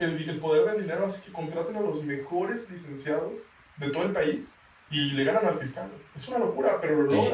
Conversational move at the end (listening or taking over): taking over